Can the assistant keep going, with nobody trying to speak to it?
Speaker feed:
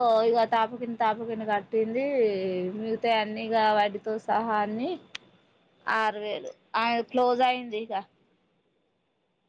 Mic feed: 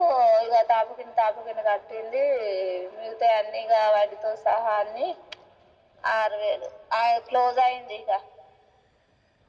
Yes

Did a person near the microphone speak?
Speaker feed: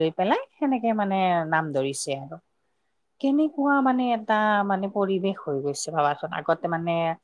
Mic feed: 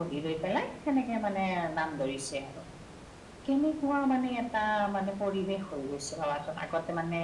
No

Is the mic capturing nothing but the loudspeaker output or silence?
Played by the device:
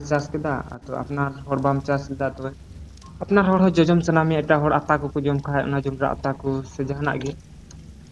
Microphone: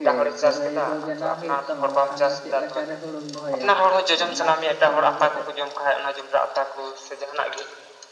No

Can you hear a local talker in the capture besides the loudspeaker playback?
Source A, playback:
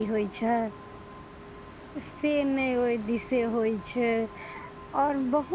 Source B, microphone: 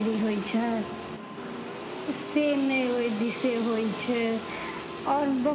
No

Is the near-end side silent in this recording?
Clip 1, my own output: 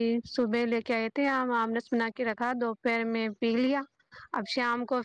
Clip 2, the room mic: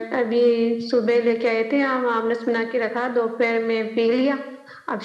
Yes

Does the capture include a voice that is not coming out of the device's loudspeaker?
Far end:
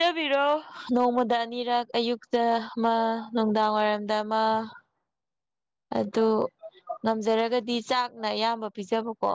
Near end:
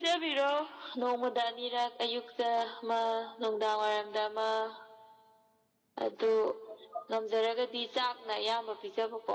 No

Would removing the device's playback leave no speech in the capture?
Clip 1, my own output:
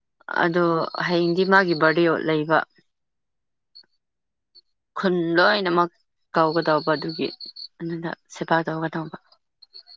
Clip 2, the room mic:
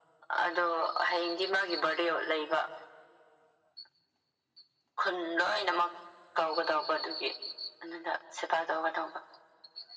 Yes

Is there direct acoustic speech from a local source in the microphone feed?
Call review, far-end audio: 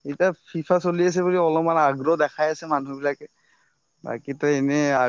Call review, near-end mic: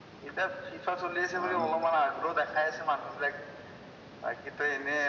Yes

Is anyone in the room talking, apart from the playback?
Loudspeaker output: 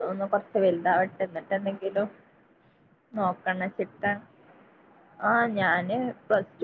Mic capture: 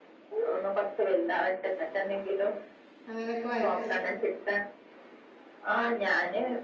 Yes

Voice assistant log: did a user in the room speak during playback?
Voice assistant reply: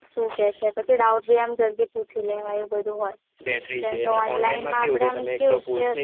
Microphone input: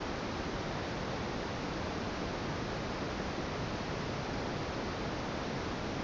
No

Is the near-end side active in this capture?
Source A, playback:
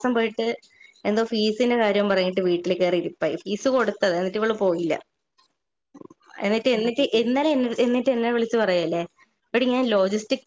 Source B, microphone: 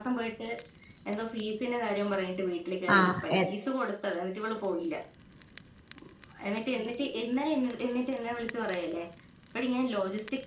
Yes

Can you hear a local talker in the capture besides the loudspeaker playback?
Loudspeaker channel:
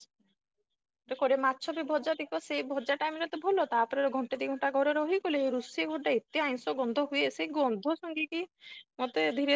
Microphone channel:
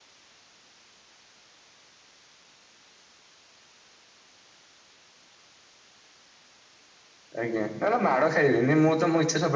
Yes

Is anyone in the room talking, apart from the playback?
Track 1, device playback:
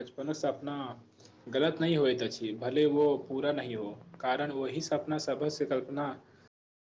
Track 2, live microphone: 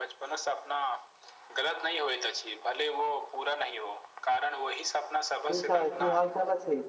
Yes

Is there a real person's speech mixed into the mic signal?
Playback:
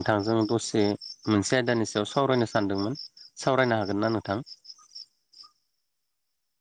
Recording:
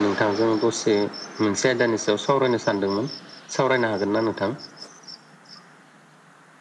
No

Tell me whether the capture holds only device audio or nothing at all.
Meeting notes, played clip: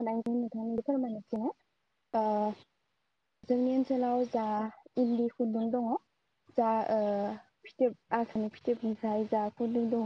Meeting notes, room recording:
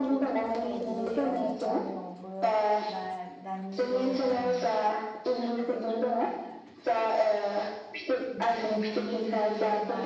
No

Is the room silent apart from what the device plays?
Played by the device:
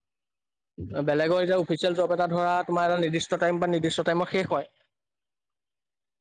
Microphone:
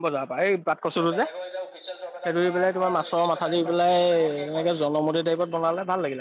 No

